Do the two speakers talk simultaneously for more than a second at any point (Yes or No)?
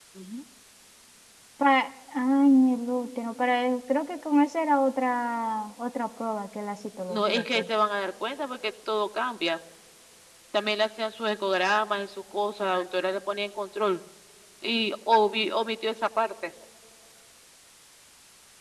No